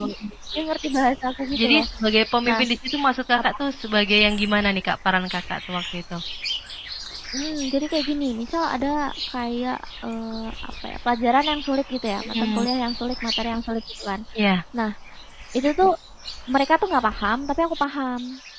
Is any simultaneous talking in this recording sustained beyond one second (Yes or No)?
No